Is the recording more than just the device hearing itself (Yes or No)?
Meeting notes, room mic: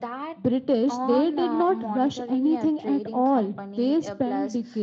No